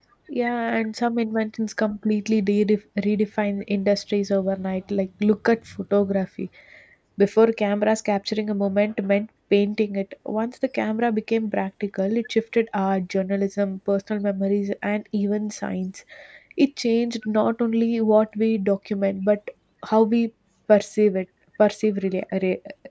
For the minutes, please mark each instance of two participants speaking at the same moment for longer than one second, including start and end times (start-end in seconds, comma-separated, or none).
none